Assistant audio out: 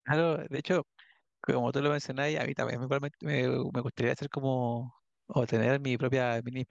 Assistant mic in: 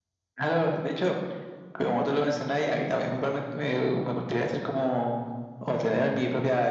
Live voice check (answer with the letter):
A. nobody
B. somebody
A